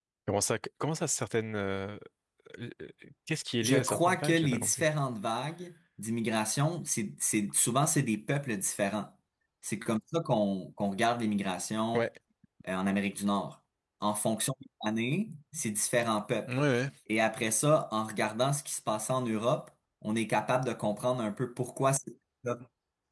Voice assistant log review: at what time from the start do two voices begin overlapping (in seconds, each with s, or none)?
3.6 s